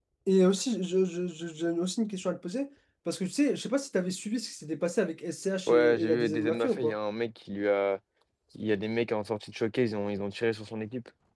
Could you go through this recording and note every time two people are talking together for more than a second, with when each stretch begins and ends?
5.7-6.9

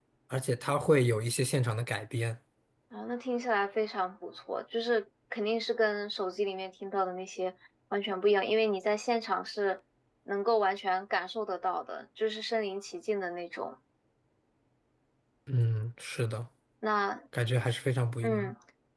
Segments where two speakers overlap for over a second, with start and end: none

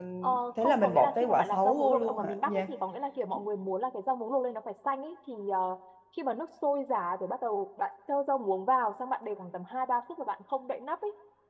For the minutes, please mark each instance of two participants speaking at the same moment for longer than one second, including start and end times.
0.6-2.7

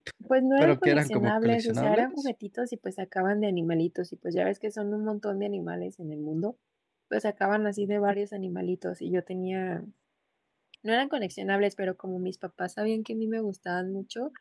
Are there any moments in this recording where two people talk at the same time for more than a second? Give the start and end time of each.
0.6-2.3

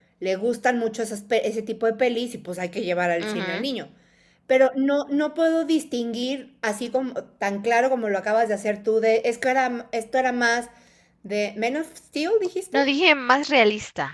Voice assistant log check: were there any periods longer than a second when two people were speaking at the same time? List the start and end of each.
none

